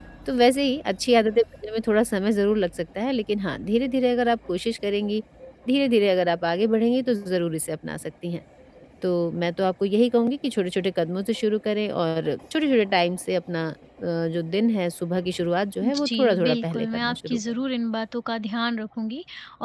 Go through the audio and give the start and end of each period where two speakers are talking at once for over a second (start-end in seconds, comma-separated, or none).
15.8-17.4